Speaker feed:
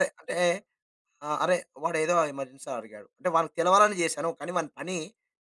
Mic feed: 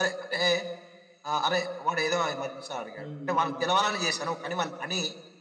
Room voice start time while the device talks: 3.0 s

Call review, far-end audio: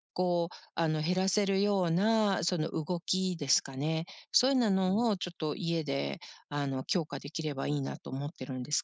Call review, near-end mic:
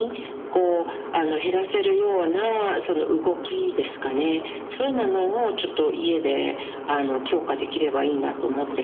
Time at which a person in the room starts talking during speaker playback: none

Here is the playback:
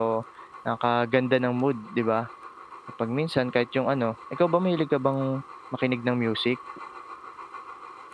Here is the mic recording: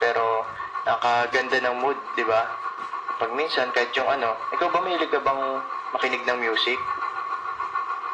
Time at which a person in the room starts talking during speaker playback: none

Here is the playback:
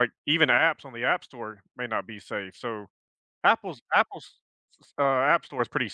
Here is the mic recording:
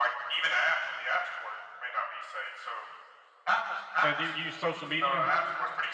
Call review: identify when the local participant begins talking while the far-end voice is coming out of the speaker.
4.0 s

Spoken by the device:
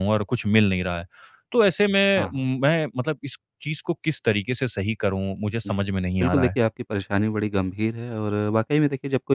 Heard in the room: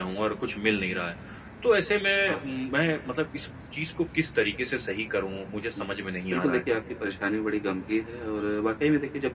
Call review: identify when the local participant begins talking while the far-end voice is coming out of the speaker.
none

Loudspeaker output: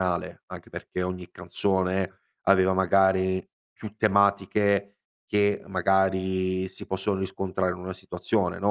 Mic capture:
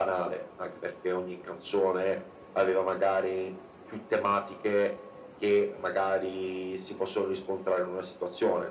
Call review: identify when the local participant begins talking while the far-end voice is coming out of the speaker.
none

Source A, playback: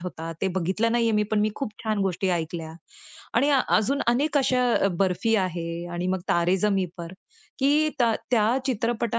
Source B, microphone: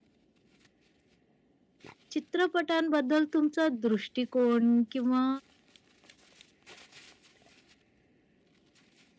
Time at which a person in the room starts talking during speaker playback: 2.1 s

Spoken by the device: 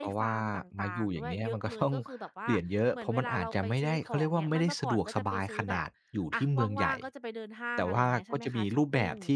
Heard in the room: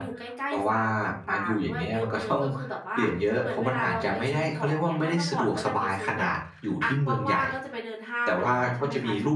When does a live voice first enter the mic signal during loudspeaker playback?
none

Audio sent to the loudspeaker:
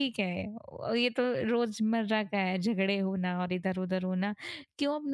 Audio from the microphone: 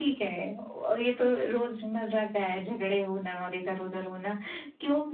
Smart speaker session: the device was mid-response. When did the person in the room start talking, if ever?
none

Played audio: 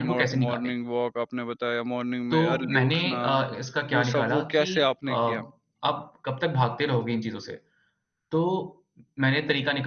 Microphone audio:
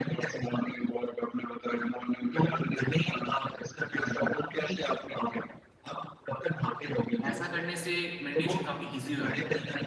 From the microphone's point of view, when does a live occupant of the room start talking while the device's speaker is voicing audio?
7.2 s

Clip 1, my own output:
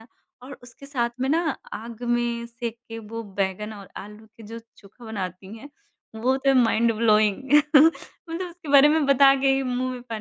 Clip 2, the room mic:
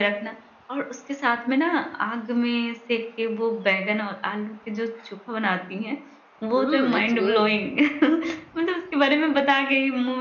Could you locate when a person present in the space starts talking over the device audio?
6.5 s

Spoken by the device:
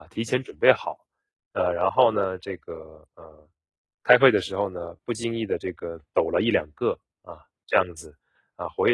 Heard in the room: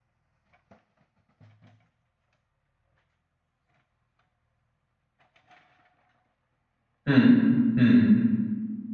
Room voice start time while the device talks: 7.0 s

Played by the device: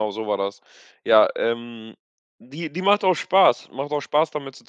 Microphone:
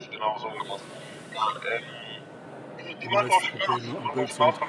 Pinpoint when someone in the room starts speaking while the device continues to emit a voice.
3.0 s

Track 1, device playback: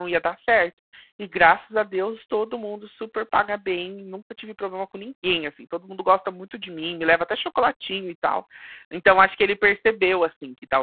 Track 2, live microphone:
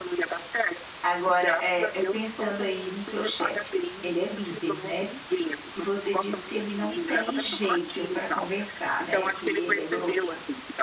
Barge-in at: 1.0 s

